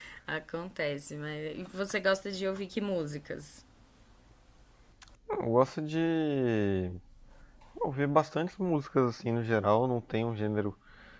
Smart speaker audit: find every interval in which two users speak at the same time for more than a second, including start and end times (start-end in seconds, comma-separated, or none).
none